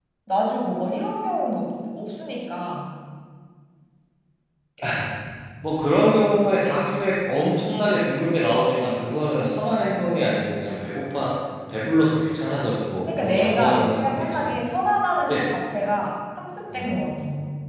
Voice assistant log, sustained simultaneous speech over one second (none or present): present